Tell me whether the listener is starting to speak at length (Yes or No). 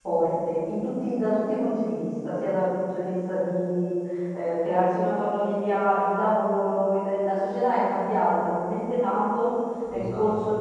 No